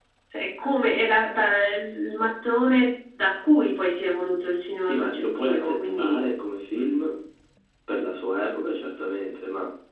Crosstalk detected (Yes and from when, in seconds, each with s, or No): Yes, from 4.8 s